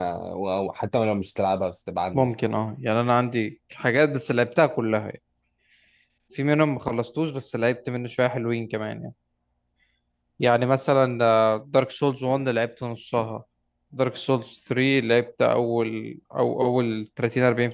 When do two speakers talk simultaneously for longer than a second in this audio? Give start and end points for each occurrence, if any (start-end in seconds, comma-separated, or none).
none